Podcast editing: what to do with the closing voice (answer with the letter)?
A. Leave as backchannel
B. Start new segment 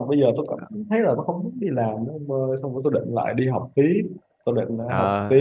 B